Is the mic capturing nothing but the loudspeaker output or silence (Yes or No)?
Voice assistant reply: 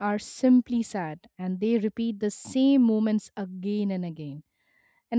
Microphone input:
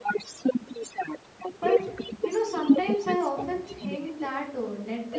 No